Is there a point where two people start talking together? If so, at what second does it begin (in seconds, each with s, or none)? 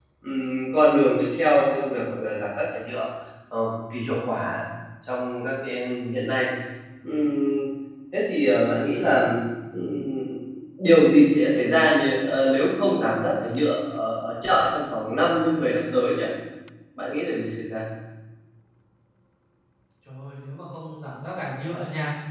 none